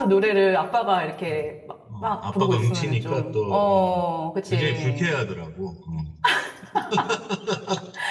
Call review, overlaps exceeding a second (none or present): present